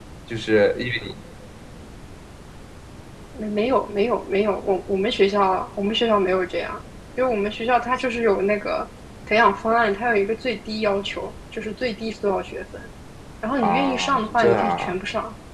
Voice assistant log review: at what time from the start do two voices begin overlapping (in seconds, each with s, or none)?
13.6 s